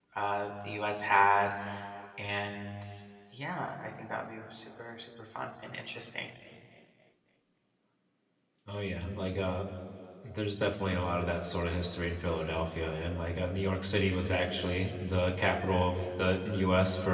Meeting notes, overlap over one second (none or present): none